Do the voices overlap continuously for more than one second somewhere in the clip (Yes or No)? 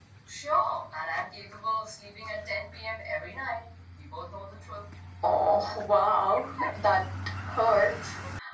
No